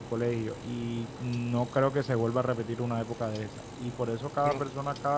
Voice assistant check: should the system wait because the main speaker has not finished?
Yes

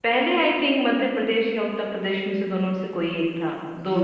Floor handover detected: Yes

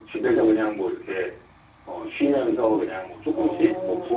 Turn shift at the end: No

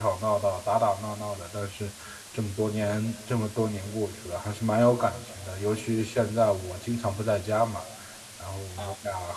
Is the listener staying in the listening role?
Yes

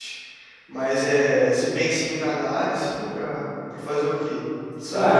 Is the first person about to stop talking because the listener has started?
Yes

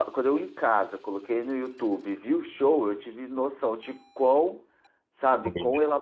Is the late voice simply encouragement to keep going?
Yes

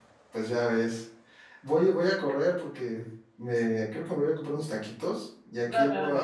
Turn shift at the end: No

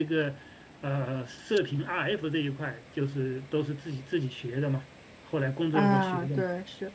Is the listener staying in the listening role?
No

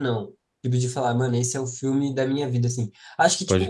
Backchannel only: Yes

